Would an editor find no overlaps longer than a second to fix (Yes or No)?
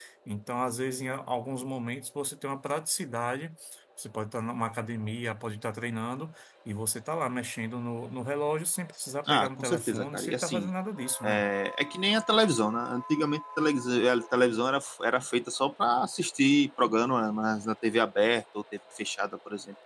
No